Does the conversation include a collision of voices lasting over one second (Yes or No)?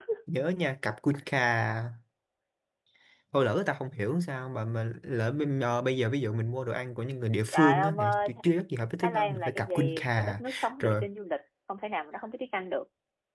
Yes